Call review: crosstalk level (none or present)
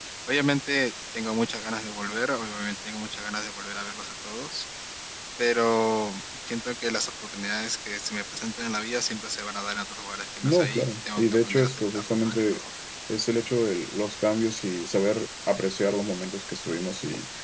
present